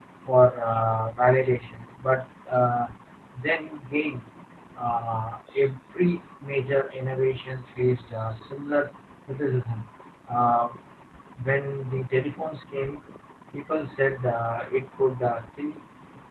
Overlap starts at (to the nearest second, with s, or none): none